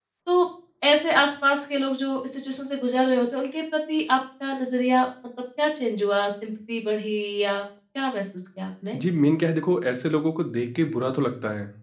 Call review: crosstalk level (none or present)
none